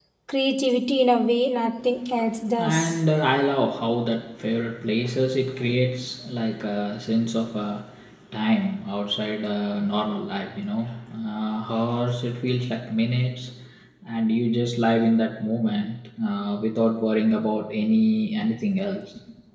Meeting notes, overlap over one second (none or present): none